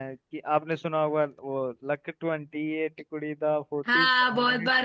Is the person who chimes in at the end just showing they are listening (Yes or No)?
No